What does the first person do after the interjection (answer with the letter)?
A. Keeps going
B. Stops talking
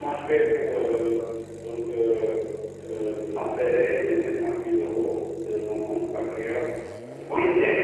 B